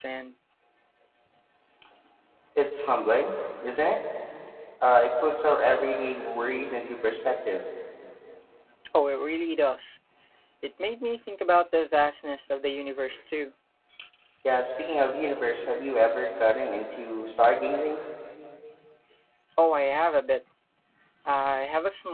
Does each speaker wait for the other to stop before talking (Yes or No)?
Yes